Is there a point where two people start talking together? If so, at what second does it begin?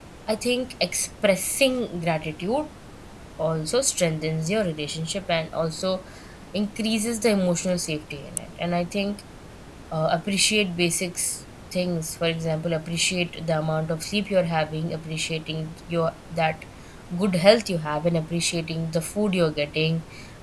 none

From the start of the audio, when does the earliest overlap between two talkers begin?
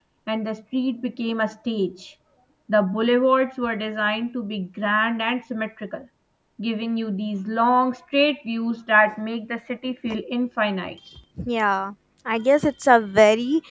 none

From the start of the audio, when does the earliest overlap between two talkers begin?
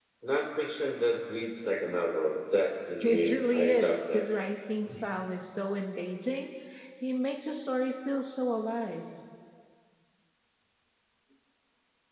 3 s

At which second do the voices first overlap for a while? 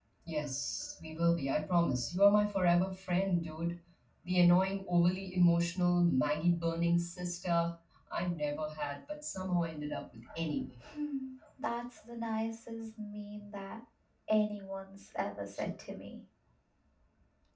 none

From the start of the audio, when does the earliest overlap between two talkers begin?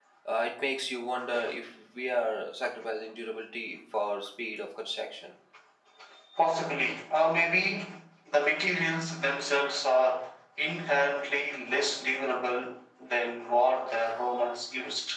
none

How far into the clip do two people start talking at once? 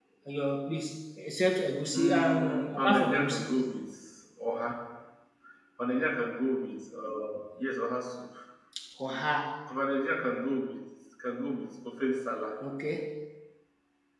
2 s

